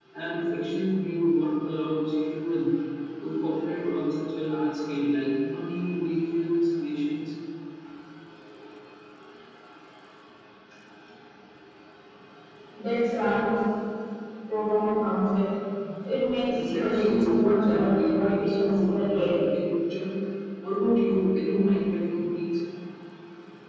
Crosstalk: present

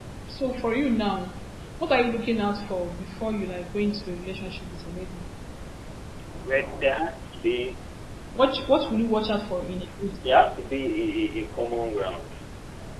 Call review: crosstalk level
none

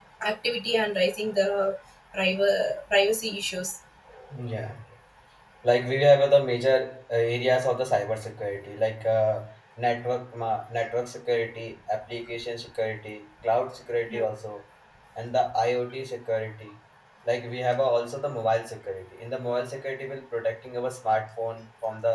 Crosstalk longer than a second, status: none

